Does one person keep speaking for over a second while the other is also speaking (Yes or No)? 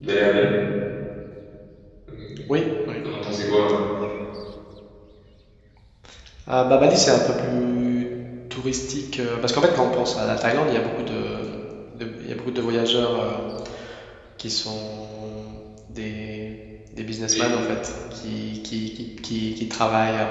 No